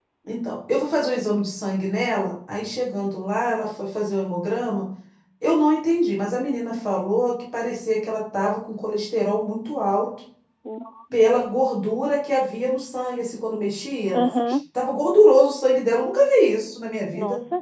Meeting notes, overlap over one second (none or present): none